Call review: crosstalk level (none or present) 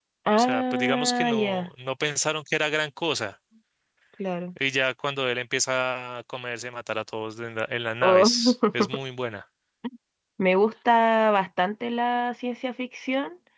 present